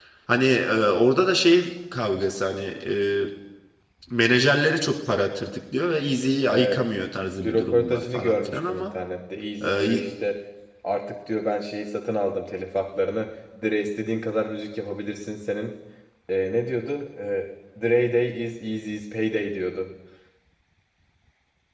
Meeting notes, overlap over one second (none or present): present